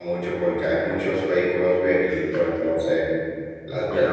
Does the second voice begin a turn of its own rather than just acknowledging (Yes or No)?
No